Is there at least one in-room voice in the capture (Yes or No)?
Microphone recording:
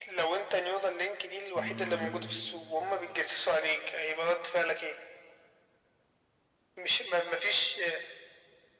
Yes